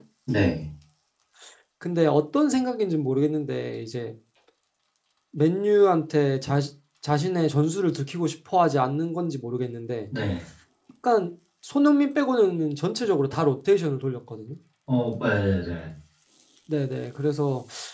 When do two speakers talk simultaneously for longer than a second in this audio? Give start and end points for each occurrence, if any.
none

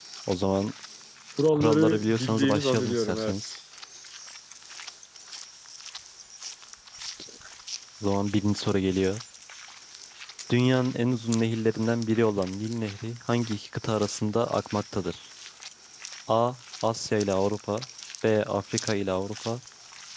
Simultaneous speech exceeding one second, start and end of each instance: 1.5-3.5

